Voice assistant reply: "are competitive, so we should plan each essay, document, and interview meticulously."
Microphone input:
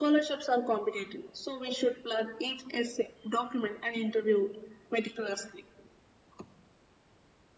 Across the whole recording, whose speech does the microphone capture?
echo only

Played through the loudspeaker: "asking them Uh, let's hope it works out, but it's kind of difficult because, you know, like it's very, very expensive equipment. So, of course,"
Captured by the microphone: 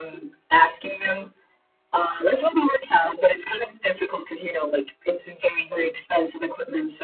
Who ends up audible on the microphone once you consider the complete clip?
echo only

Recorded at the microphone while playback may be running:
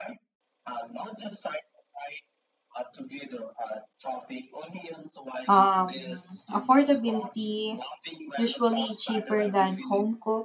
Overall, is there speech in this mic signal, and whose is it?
both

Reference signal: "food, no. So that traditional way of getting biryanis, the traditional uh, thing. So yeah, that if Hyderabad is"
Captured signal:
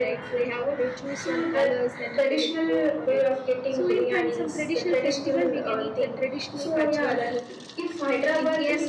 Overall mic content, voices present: both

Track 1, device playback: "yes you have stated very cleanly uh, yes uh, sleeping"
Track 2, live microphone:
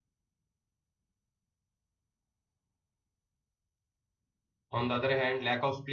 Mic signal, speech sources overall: user only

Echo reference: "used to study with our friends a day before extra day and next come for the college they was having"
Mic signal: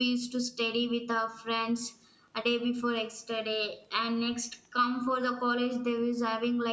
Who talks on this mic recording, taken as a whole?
echo only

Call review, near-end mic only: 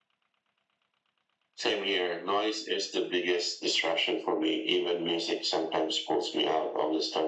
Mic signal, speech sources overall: echo only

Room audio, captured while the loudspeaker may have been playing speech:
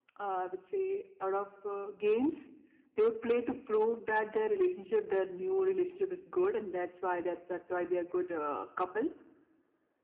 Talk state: echo only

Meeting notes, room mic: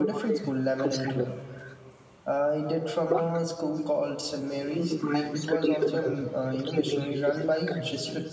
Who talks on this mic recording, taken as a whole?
both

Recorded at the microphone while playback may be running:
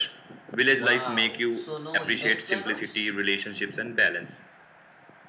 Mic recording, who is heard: both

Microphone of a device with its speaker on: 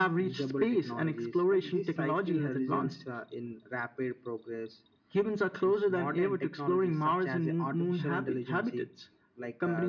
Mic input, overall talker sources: echo only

